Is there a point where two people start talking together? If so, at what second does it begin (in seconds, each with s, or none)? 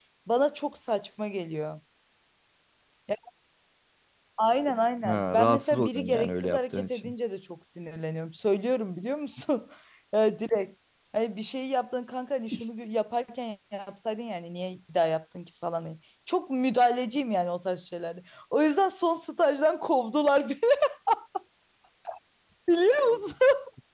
5.0 s